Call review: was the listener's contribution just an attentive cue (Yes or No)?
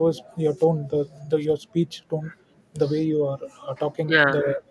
Yes